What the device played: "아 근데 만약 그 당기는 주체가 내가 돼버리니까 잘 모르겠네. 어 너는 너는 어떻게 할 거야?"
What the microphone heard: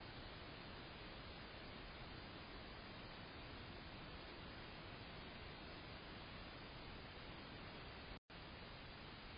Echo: none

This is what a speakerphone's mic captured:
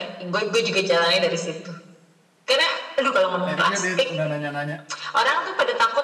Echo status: present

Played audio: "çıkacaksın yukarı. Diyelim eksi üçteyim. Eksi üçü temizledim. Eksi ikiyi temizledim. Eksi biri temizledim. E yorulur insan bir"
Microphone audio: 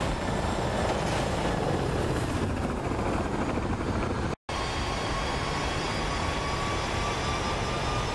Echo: none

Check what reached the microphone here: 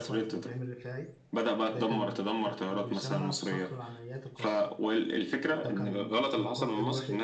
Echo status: present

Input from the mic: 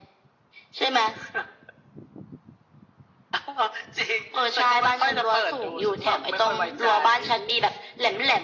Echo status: present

